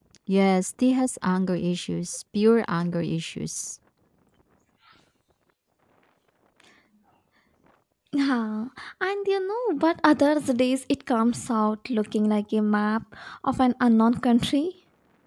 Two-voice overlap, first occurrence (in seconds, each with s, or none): none